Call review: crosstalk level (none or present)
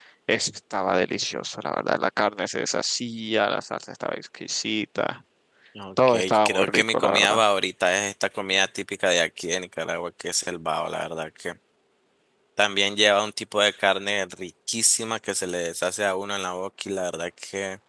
present